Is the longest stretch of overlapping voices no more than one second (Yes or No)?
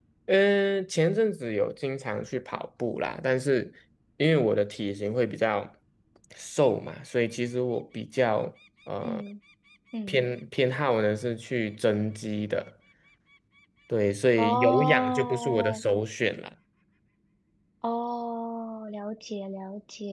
No